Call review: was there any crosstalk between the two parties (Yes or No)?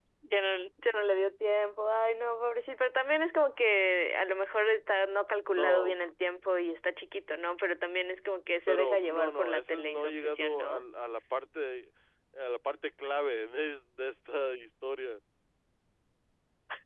Yes